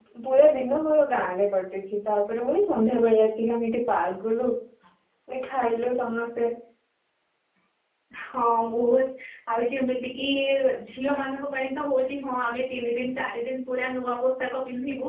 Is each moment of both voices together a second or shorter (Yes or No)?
Yes